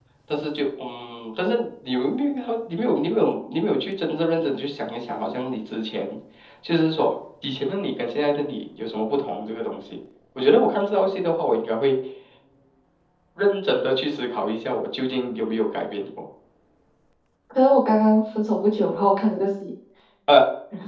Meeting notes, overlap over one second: none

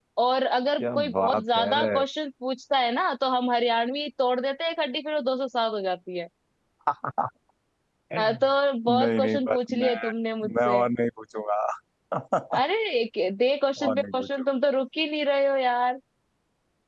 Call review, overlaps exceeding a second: present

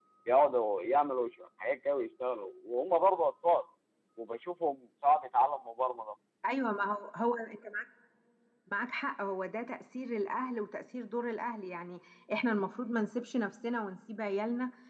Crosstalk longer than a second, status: none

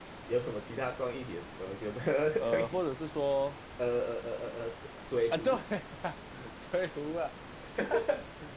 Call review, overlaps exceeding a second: none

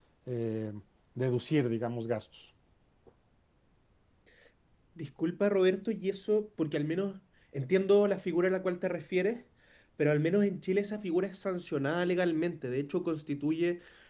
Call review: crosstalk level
none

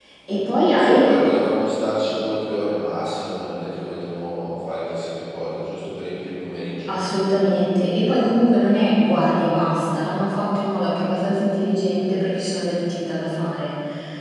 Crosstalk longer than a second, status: none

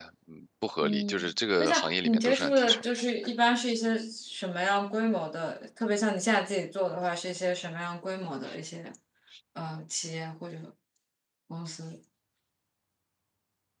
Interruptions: present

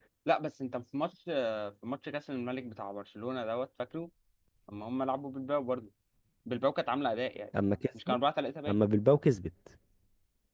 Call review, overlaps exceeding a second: none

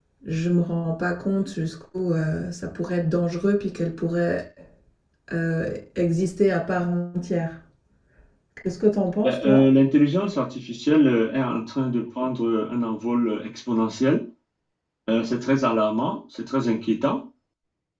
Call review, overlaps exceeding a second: none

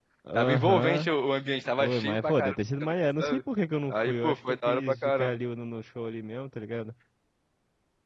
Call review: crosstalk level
present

